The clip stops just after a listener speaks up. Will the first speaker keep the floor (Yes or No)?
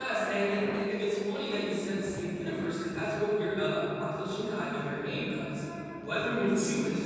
Yes